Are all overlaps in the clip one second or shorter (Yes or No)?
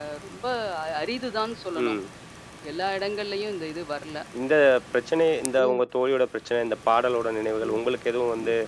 Yes